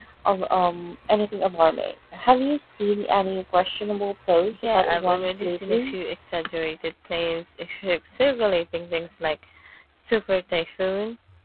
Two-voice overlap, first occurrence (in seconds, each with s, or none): 4.5 s